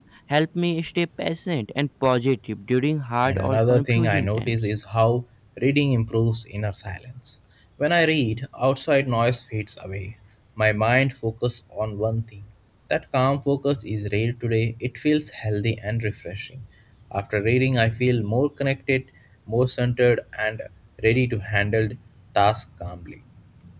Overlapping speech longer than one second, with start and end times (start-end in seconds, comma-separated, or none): 3.2-4.5